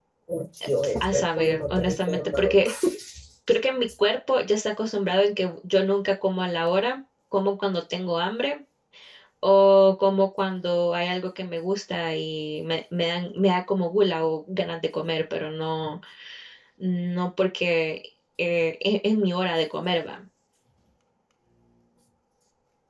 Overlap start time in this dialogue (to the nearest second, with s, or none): 1 s